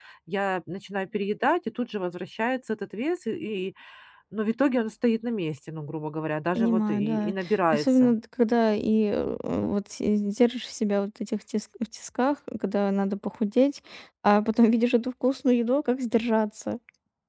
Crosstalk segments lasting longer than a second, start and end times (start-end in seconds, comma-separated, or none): 6.5-8.2